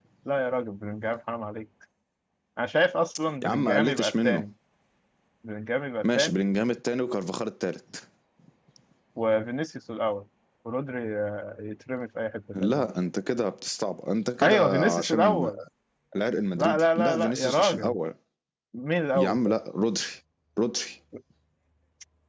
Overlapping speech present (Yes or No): Yes